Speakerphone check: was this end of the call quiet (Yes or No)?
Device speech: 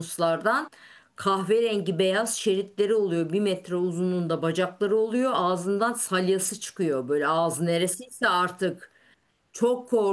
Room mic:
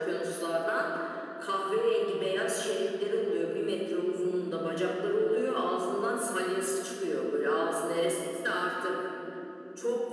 Yes